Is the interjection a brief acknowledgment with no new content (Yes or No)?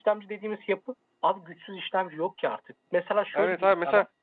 No